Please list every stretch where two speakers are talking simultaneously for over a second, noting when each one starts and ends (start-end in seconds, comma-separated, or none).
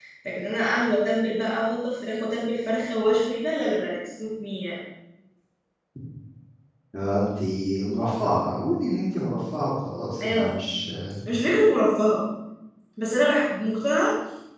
none